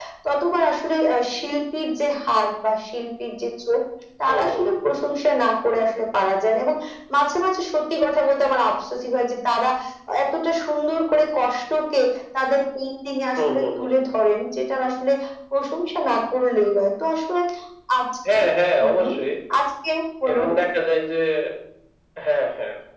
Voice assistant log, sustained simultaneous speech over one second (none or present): none